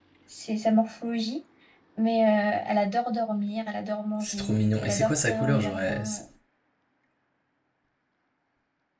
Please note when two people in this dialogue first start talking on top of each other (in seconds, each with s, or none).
4.2 s